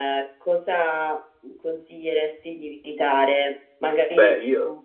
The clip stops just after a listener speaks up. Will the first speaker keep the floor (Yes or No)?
Yes